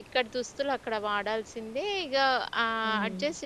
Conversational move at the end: listening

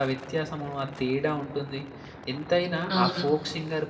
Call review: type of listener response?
listening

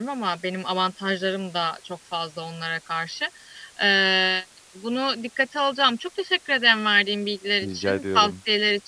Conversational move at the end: listening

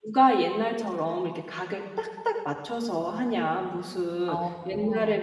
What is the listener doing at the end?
listening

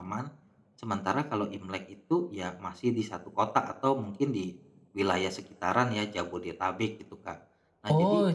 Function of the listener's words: taking over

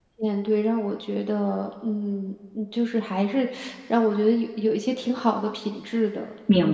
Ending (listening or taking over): taking over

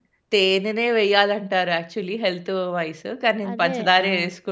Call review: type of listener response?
listening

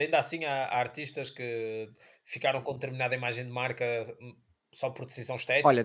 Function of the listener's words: taking over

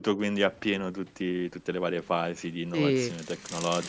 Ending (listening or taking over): listening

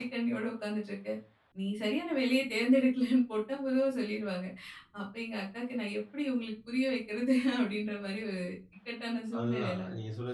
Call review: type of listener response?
taking over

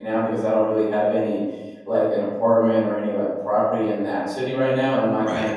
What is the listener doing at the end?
listening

